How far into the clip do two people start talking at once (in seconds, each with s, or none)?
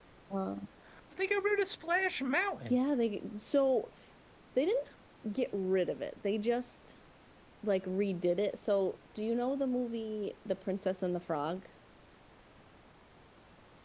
none